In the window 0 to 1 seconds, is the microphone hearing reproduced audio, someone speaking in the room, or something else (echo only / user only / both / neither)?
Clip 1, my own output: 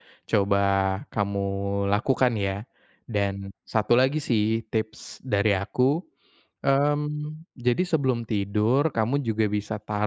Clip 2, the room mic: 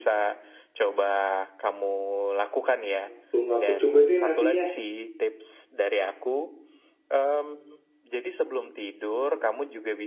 echo only